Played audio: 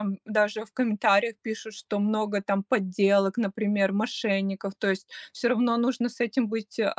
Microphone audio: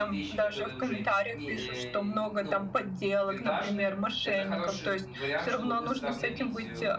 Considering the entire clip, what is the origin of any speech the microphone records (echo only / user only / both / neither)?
both